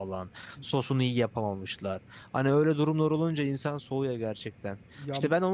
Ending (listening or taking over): listening